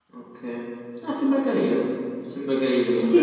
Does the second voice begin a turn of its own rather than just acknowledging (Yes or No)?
Yes